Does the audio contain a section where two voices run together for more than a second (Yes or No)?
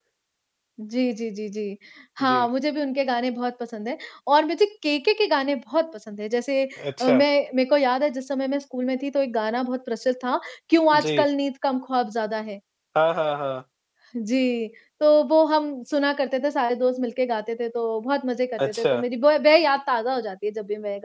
No